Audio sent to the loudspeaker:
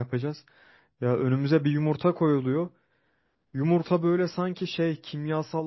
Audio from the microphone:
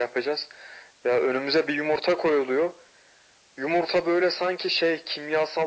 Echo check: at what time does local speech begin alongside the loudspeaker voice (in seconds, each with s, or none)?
none